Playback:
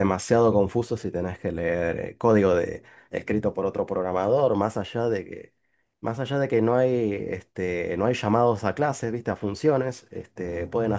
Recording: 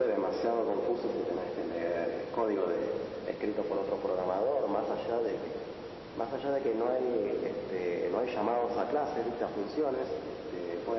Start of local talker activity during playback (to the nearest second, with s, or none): none